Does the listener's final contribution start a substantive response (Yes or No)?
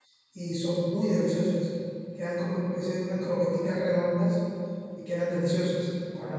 Yes